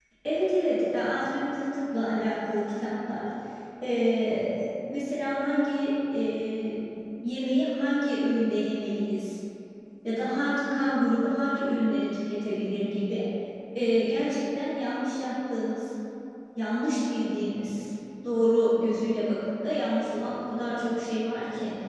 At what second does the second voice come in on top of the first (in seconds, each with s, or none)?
none